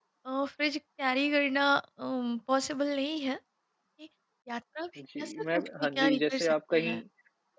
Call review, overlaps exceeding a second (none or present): present